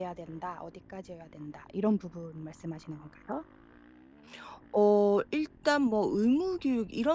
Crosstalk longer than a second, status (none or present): none